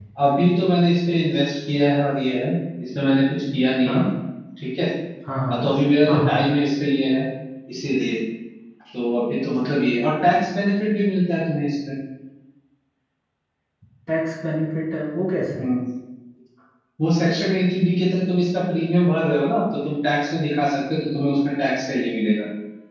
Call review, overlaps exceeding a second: none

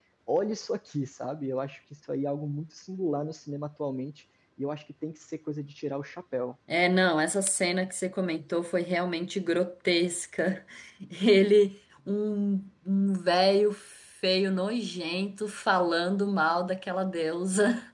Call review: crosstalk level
none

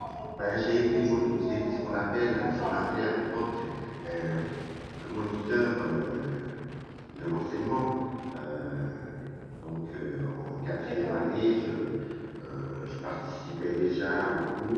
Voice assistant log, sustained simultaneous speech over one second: present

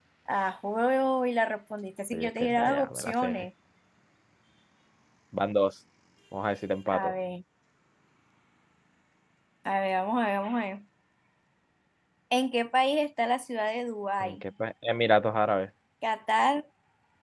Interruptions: present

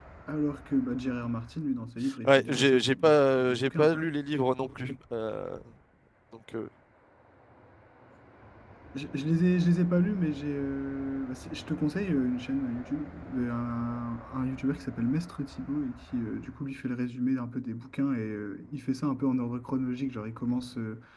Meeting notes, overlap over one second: present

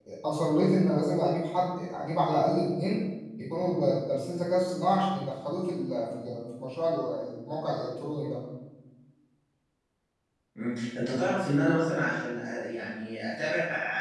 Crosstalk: none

